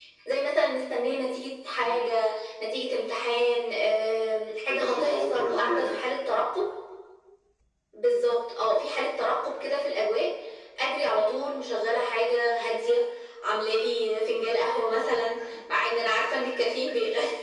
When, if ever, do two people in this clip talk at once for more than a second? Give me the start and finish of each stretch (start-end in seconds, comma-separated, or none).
4.7-5.9